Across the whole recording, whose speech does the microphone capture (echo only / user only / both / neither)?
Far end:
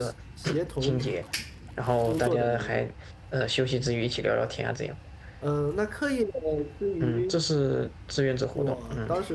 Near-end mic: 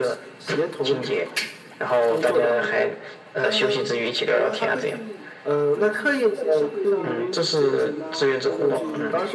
both